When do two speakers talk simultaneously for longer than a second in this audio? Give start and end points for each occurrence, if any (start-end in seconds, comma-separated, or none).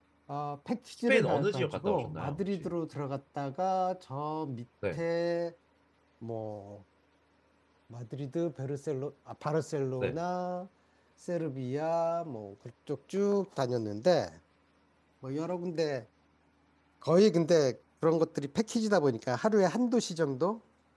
1.1-2.7